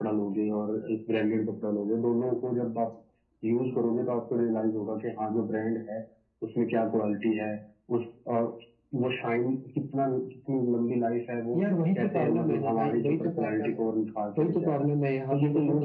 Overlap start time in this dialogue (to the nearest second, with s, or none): 12 s